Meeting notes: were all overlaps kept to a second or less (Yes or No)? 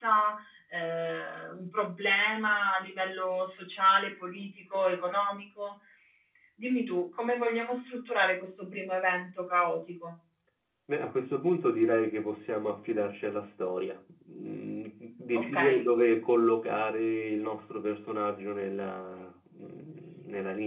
Yes